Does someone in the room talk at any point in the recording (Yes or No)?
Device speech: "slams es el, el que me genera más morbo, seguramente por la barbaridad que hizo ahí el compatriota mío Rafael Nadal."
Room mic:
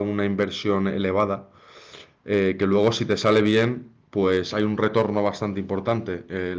Yes